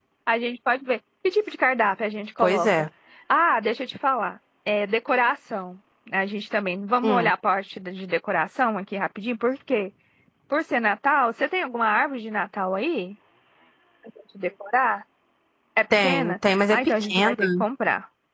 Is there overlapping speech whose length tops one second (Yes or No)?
Yes